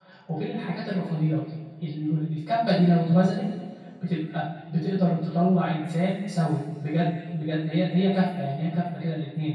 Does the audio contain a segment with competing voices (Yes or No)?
No